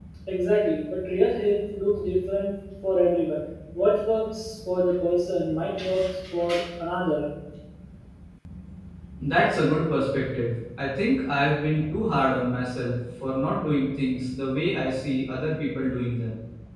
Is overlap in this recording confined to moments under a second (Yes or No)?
Yes